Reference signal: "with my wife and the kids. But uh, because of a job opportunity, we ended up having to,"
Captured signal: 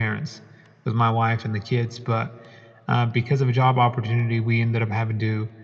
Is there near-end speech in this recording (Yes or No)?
No